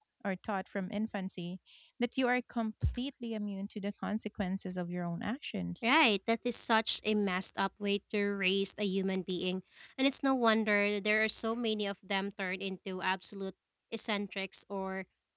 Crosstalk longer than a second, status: none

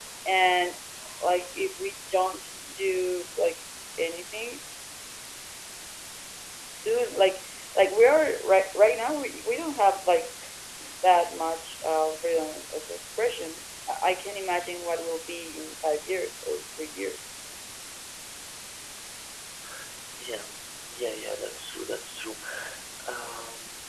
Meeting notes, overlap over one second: none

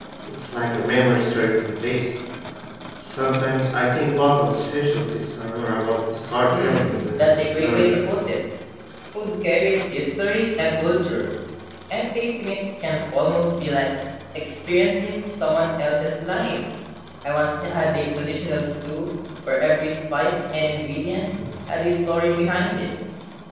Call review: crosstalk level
present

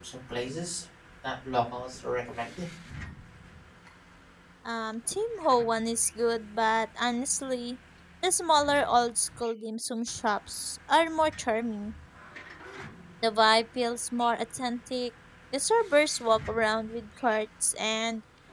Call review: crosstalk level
none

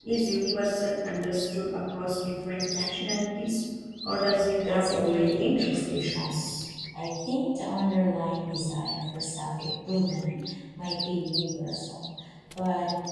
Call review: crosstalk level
present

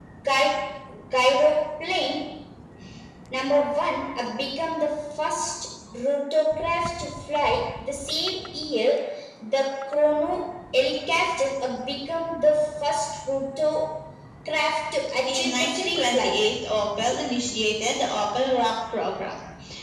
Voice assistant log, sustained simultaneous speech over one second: present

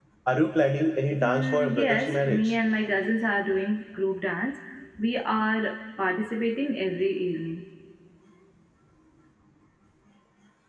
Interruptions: present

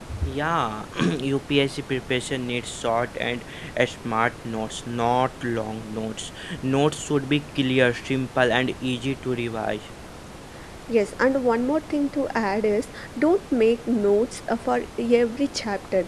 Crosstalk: none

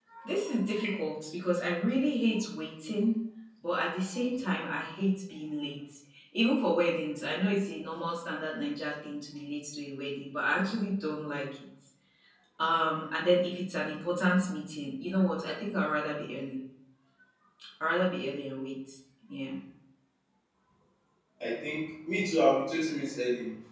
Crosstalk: none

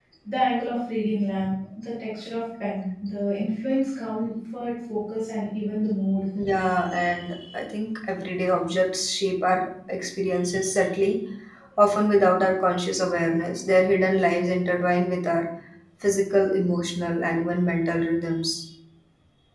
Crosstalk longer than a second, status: none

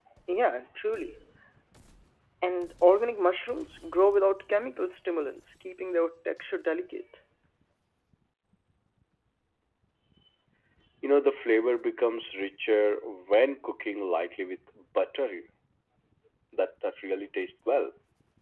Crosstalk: none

